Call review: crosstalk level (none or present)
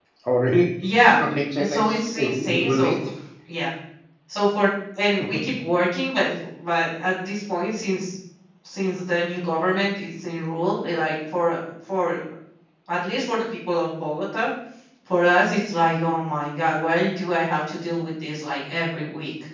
present